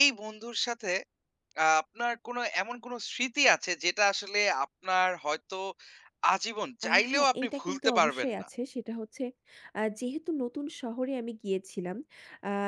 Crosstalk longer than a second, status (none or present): present